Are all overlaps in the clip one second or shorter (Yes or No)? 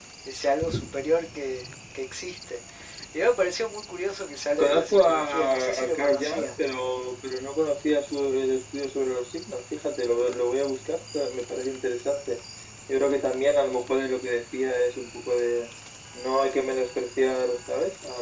No